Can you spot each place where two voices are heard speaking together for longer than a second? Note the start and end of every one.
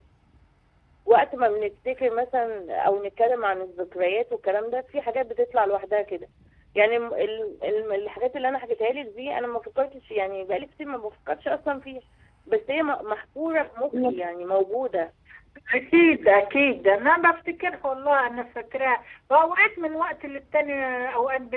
none

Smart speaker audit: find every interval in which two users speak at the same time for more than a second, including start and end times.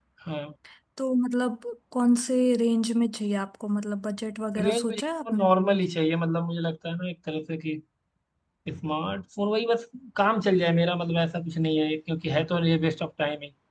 4.6-5.8

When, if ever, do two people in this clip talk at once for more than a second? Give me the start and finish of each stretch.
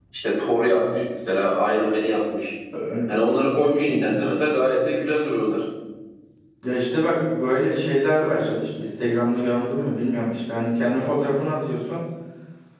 none

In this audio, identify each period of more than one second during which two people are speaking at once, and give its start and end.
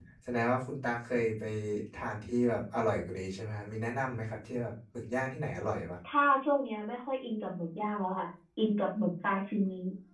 none

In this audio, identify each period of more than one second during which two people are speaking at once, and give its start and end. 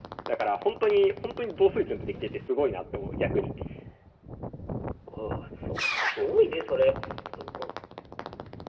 none

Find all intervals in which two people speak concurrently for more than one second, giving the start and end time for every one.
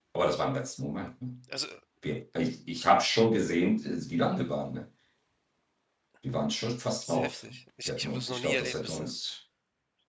7.9-9.1

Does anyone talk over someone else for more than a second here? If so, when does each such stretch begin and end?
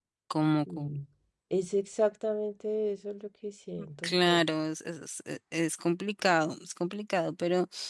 none

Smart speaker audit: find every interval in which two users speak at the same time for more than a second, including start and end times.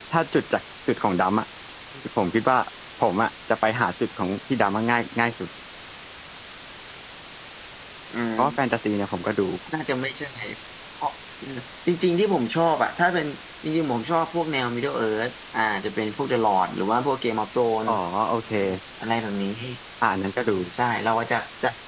none

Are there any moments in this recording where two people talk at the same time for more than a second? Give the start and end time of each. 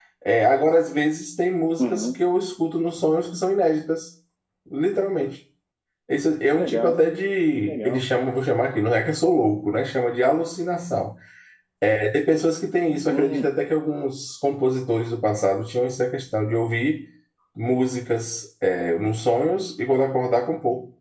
none

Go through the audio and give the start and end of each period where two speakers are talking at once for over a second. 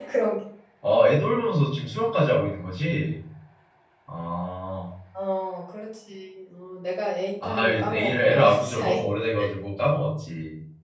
7.4-9.0

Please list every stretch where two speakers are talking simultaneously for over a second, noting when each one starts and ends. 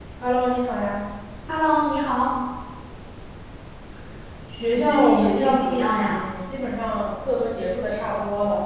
4.7-6.2

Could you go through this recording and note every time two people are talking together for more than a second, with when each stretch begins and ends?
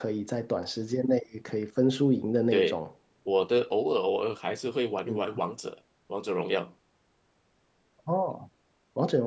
none

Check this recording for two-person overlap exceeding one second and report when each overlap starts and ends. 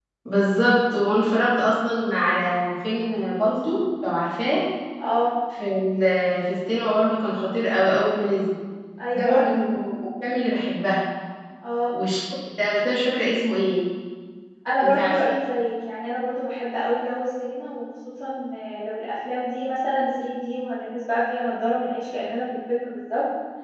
none

